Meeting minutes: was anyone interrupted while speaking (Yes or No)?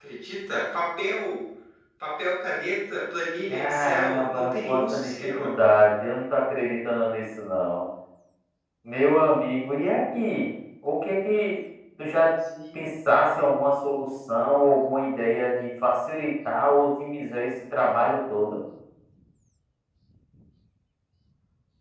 Yes